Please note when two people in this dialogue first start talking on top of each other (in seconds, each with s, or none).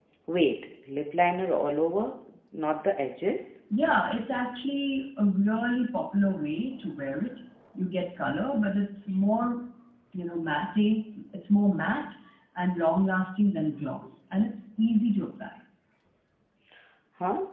none